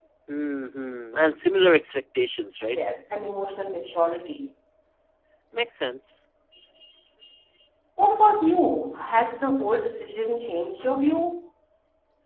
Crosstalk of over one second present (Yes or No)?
No